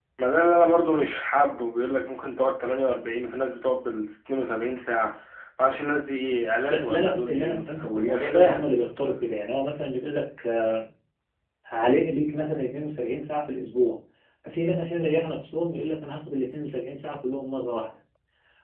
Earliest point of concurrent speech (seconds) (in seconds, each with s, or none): 6.7 s